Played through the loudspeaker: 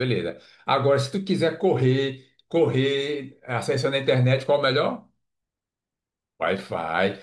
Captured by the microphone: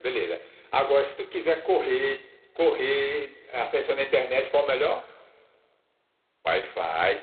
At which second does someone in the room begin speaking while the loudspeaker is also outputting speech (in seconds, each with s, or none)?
none